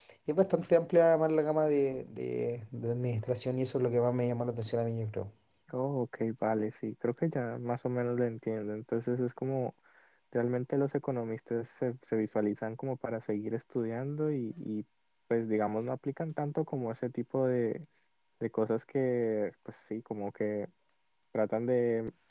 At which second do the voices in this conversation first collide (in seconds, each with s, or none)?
none